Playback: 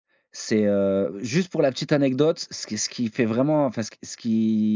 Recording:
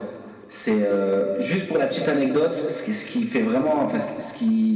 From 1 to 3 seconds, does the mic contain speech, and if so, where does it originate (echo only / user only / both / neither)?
echo only